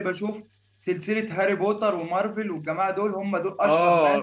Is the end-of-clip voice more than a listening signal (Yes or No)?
Yes